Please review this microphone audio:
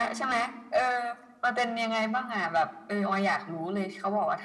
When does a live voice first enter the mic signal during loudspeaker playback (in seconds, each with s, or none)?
none